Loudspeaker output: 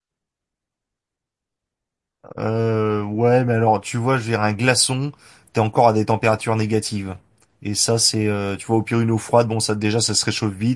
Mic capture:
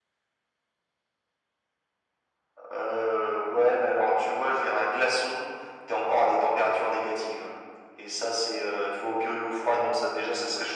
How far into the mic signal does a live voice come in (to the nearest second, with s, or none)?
none